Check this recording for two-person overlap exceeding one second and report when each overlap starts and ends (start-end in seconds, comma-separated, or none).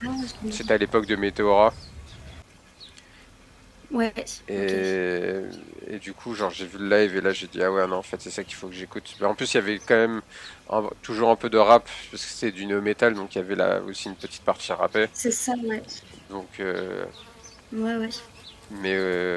none